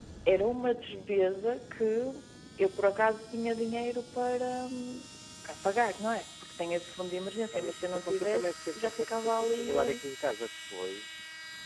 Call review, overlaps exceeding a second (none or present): present